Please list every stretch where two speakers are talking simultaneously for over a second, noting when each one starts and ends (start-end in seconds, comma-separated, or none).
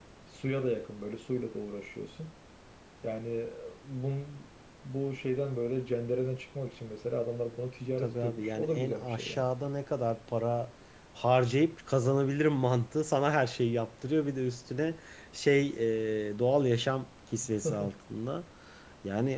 8.0-9.5